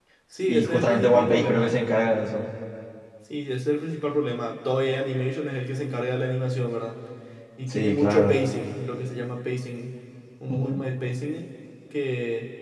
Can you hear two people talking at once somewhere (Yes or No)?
Yes